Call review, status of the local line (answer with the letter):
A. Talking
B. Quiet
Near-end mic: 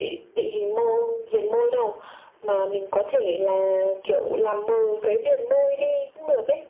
B